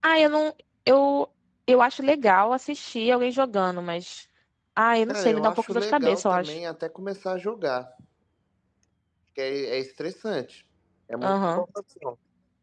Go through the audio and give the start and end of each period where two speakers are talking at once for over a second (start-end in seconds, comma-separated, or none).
5.1-6.6